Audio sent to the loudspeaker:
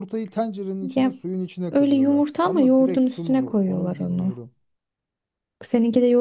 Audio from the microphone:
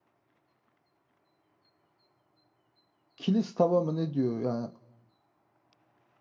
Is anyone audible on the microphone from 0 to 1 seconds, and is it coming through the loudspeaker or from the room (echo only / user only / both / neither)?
neither